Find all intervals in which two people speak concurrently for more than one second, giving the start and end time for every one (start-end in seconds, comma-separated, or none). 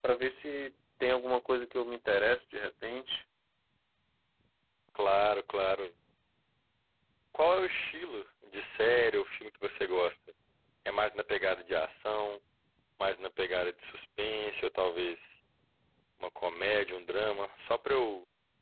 none